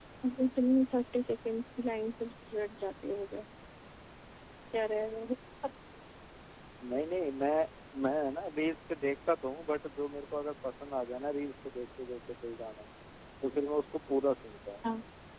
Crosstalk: none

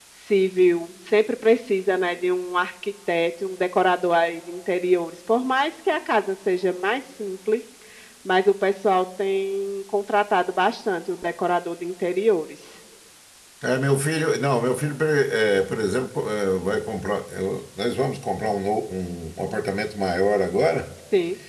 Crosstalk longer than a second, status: none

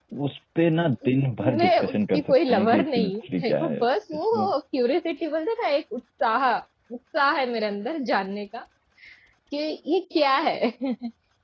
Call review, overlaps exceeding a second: present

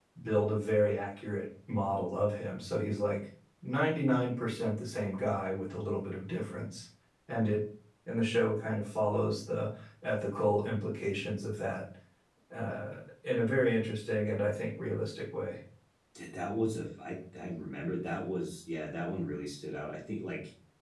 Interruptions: none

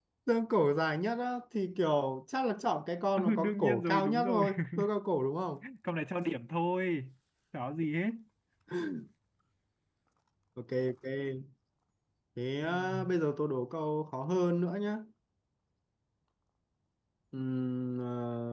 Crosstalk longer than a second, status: present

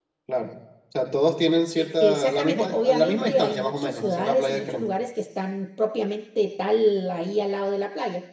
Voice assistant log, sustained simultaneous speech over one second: present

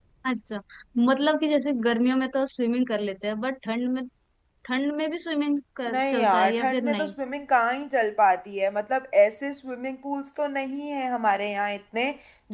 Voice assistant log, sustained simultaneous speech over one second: present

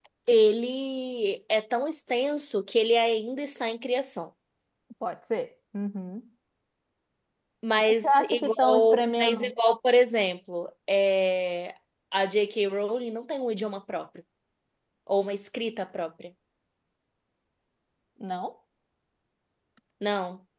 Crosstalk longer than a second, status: present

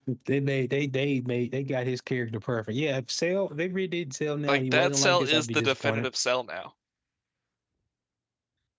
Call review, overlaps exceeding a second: present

